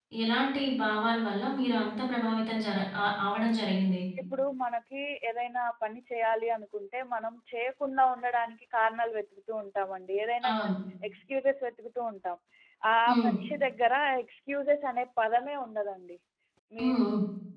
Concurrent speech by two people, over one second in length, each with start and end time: none

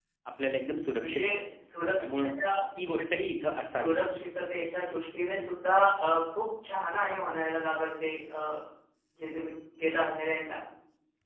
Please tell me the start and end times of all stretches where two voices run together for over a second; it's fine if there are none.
none

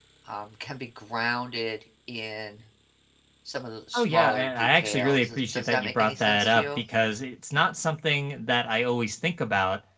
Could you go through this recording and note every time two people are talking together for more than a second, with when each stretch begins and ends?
4.0-6.8

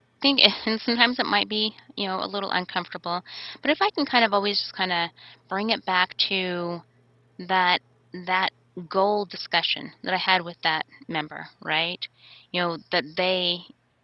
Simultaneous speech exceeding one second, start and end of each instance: none

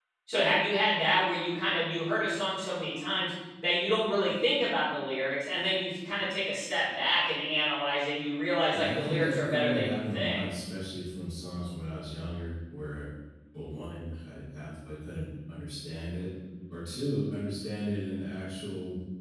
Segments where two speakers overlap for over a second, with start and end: 8.7-10.4

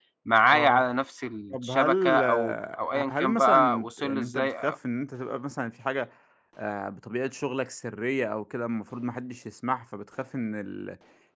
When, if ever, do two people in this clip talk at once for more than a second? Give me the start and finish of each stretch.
1.5-4.8

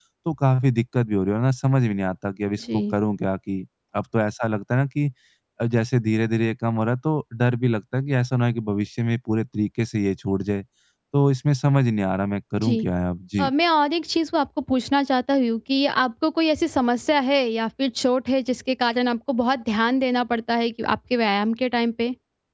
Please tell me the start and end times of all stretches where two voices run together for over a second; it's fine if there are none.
none

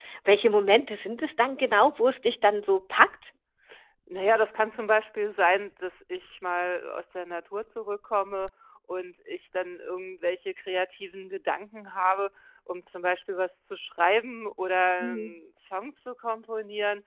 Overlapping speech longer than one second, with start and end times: none

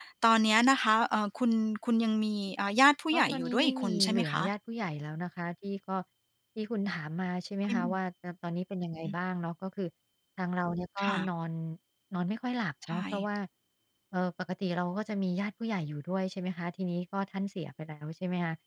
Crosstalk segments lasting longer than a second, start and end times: 3.1-4.4

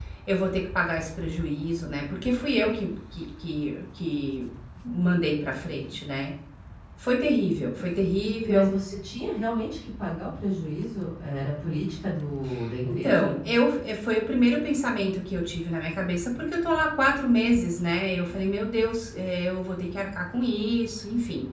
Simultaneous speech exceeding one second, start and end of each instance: none

